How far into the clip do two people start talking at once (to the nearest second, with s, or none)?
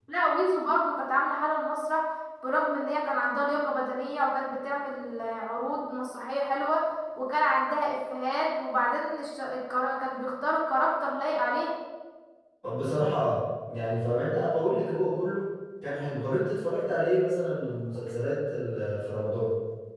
none